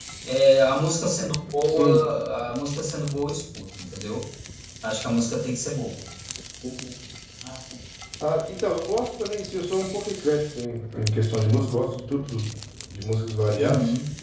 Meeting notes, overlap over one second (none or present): none